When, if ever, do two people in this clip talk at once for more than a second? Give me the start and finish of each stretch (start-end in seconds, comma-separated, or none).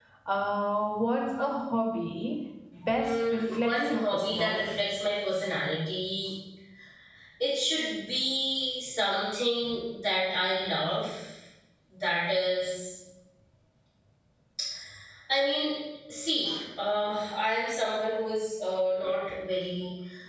2.9-4.8